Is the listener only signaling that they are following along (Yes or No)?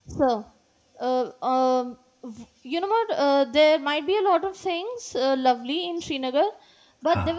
Yes